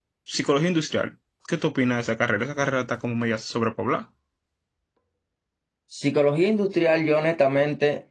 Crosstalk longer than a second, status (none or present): none